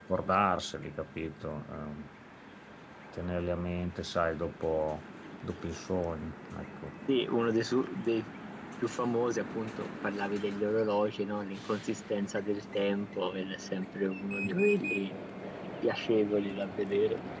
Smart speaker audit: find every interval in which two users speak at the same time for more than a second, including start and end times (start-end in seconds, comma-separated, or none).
none